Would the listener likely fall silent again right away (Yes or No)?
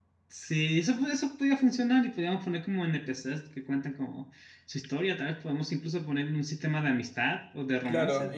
No